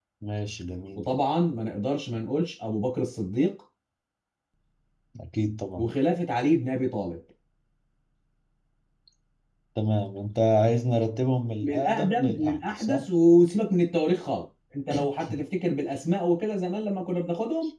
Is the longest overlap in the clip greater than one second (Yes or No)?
Yes